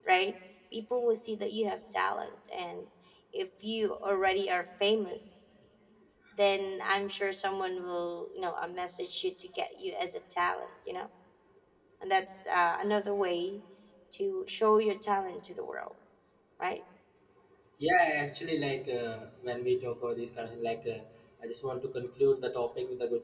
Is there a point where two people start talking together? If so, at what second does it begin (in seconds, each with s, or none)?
none